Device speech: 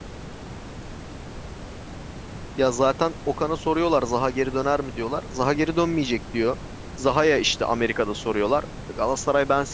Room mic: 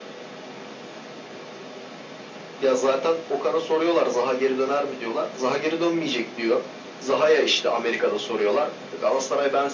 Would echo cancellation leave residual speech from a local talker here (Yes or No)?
No